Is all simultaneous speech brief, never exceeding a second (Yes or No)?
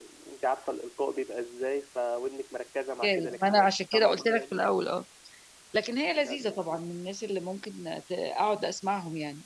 No